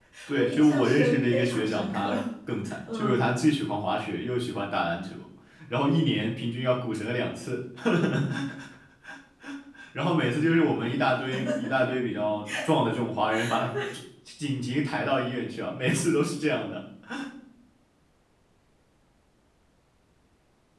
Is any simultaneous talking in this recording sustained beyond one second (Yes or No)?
Yes